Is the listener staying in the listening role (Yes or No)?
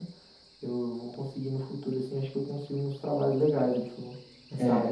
No